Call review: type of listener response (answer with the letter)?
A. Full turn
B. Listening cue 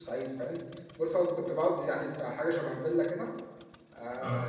B